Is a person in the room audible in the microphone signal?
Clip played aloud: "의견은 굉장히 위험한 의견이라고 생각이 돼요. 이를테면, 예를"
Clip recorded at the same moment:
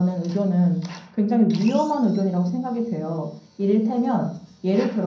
No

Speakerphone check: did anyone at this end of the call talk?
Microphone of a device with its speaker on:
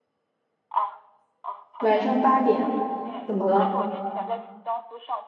Yes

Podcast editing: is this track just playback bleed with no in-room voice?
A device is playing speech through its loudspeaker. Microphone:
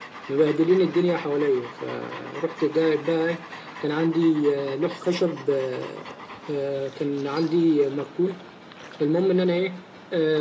Yes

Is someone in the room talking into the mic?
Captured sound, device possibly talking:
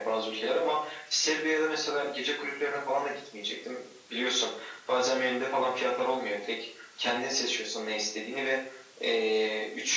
No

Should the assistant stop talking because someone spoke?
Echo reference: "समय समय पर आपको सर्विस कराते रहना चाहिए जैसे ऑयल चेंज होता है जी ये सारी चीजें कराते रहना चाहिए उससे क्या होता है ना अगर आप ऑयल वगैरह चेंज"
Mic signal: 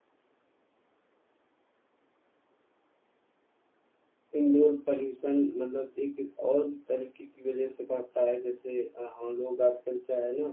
Yes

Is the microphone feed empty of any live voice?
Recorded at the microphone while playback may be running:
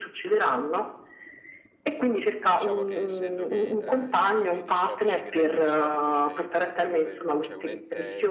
No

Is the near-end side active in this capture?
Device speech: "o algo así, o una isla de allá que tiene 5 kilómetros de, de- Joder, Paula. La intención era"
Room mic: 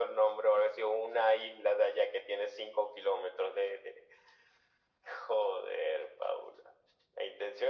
No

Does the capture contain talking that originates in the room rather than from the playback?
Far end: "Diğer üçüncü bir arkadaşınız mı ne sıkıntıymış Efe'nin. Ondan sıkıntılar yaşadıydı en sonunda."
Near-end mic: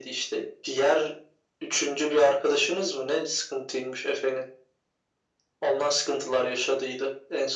No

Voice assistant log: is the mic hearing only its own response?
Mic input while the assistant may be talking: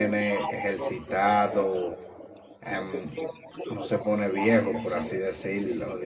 No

